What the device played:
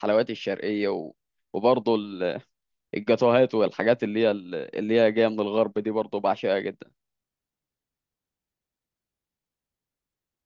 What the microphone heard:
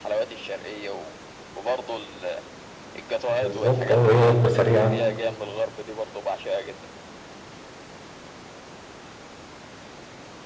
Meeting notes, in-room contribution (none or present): present